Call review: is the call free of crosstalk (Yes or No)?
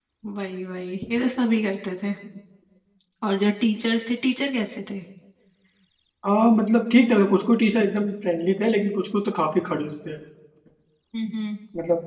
Yes